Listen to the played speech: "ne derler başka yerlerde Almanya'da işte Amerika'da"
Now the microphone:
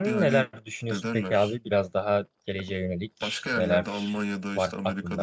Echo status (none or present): present